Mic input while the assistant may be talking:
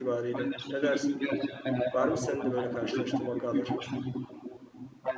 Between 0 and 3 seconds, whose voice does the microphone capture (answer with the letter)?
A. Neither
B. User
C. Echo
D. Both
D